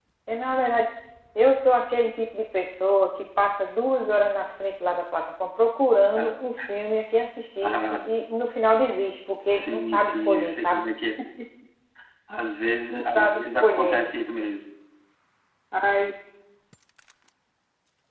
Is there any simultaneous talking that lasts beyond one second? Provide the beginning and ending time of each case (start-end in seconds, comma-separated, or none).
9.5-10.9, 12.9-14.1